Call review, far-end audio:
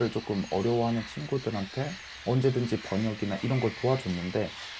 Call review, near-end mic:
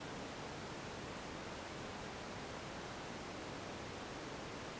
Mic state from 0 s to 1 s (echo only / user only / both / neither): neither